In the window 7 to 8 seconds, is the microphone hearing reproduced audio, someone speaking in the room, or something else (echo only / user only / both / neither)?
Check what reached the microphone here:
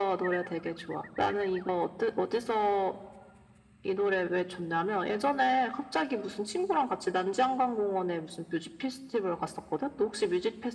echo only